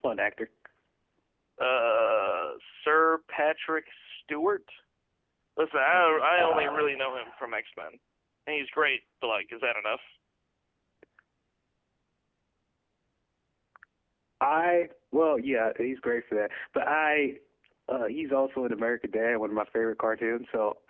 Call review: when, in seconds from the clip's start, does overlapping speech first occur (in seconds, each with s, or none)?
5.9 s